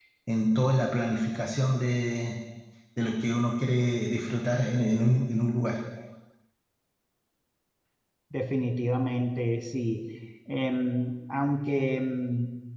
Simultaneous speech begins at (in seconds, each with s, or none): none